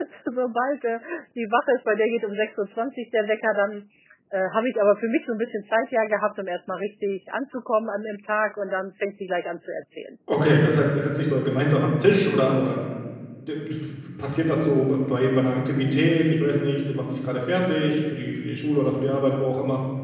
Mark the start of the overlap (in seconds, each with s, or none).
none